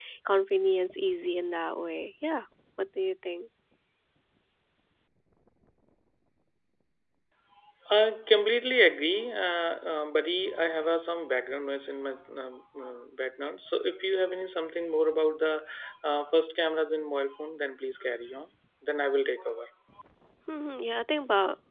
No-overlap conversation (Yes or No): Yes